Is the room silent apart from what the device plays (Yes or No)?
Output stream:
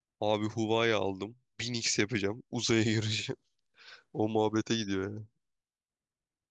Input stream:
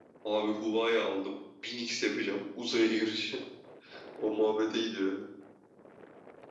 Yes